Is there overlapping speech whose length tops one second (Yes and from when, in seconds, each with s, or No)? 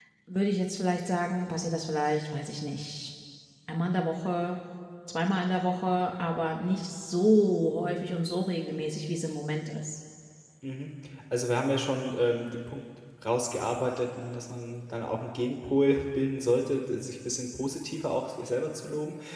No